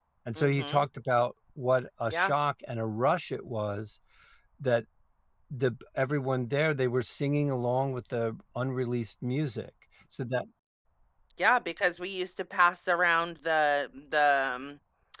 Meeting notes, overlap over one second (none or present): none